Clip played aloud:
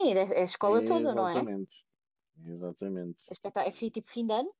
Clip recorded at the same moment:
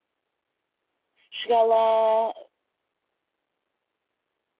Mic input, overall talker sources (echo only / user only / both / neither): user only